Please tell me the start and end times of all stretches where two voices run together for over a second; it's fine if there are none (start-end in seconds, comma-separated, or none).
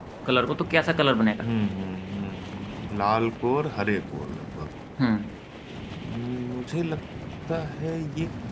none